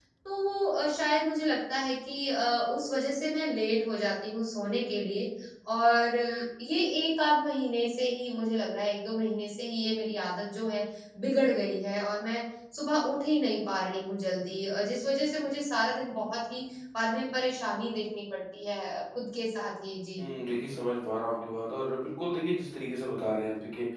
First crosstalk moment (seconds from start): none

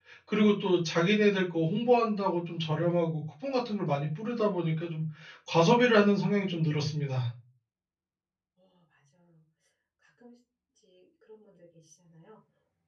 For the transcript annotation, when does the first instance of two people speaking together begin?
none

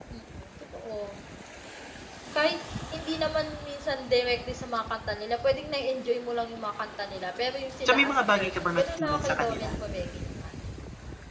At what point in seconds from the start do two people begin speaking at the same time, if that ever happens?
7.8 s

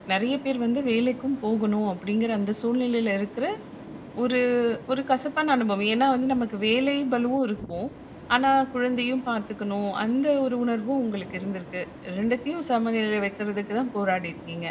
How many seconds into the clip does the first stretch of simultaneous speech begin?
none

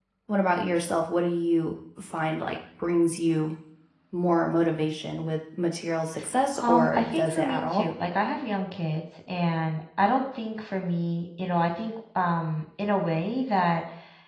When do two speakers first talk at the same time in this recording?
6.6 s

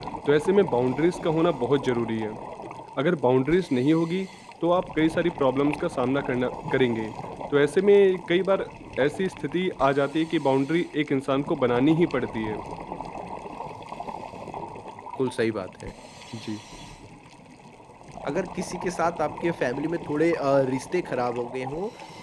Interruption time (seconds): none

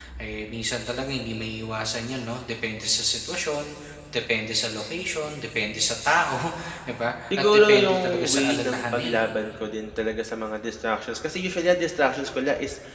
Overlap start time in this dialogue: 7.4 s

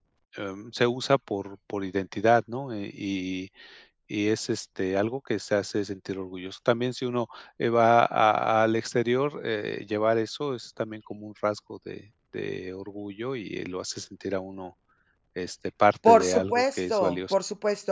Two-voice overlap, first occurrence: 16.1 s

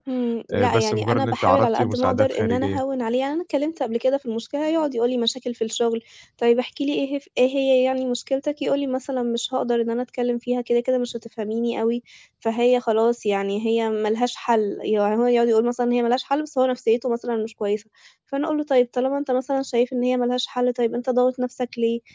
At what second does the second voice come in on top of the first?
0.5 s

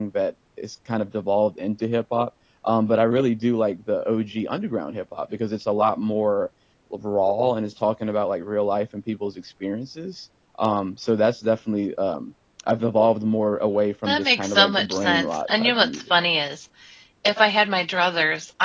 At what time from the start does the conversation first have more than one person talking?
14.1 s

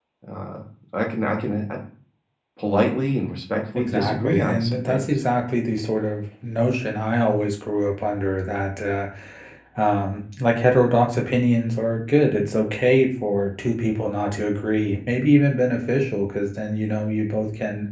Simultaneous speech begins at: 3.8 s

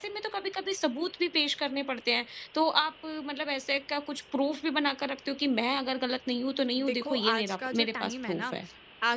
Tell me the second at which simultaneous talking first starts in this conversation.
6.8 s

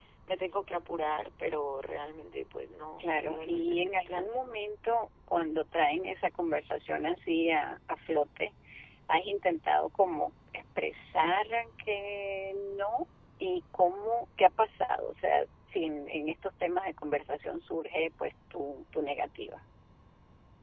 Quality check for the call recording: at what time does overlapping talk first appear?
3.0 s

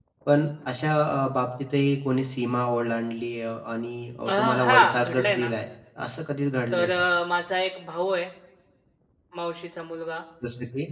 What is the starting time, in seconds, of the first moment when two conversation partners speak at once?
4.3 s

